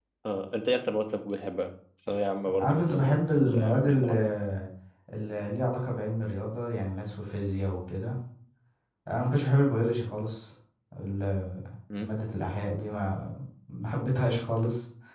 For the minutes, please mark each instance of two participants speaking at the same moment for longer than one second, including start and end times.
2.6-4.1

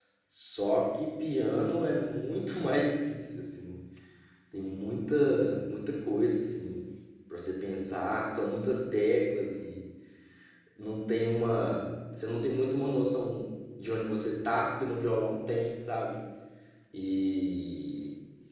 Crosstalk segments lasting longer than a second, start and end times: none

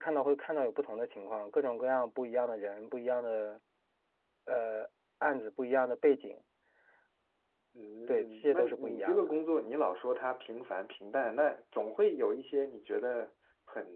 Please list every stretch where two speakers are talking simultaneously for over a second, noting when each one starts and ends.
8.1-9.3

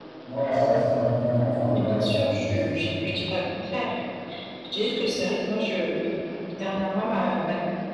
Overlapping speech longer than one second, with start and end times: 1.3-2.9

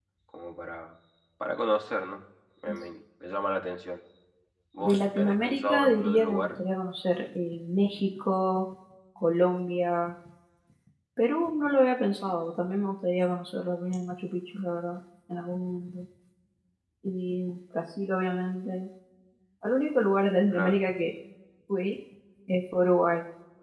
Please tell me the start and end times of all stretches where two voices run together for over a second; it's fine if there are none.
4.8-6.6

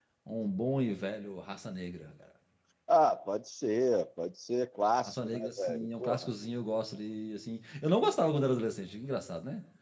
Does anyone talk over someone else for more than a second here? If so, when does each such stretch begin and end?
5.0-6.3

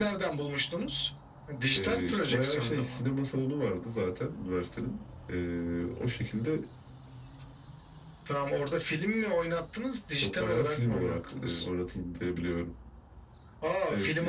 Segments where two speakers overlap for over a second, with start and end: 1.7-3.0, 10.2-11.7

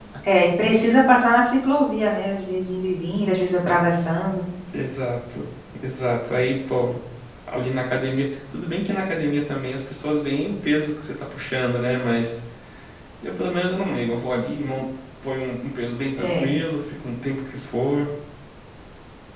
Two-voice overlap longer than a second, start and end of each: none

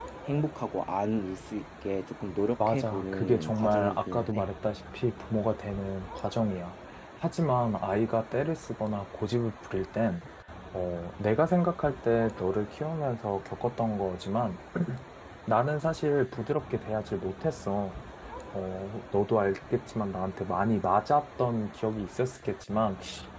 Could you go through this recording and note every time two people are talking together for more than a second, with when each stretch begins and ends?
2.7-4.5

